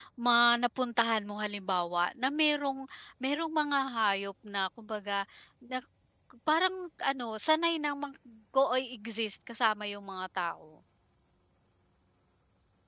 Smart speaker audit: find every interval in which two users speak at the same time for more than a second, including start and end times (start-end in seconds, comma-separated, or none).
none